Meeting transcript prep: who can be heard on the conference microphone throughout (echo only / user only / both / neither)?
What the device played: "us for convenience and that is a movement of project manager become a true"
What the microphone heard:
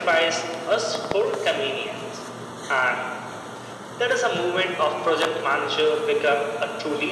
echo only